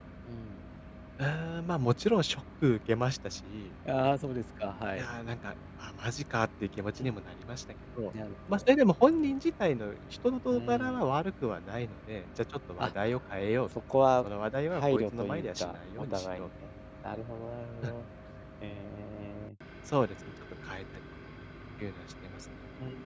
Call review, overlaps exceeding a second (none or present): present